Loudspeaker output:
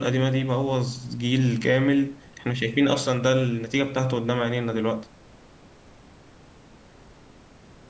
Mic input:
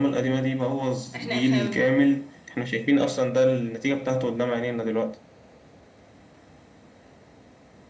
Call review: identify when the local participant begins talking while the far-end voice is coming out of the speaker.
1 s

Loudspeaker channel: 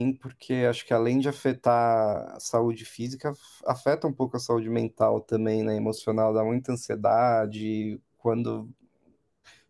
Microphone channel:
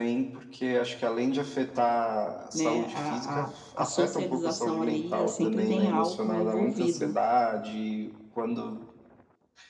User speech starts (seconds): 3 s

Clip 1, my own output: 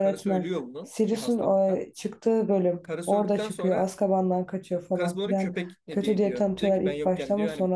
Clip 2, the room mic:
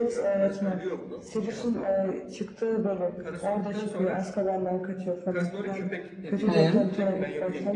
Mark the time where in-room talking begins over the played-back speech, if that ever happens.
6 s

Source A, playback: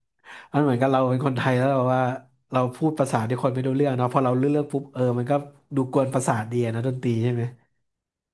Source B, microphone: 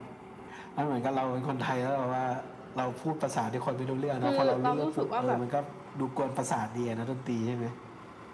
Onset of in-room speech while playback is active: 4 s

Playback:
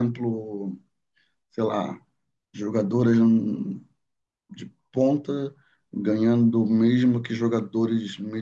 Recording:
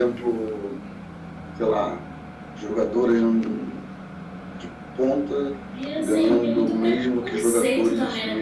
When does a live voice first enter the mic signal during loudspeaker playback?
6 s

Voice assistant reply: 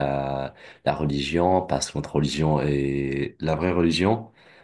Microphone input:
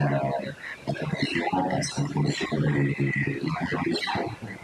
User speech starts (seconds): none

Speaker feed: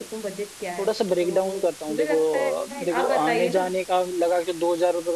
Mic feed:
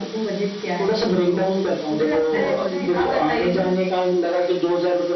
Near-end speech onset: 2 s

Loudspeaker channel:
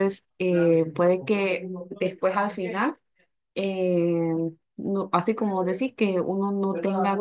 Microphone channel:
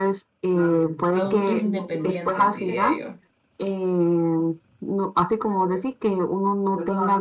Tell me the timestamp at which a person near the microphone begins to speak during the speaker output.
1 s

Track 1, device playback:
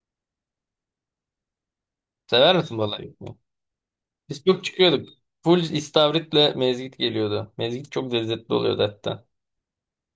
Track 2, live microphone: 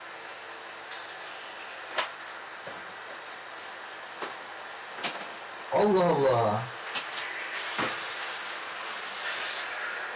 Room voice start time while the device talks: 6 s

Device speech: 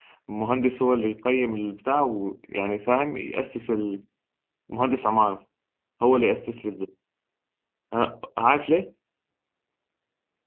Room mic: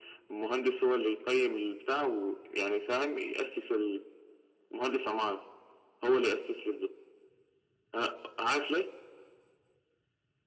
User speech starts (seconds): none

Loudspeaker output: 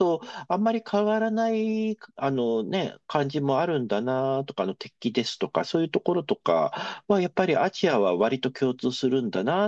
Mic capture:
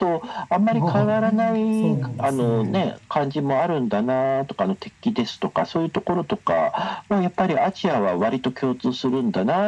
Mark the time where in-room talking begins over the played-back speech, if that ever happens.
1 s

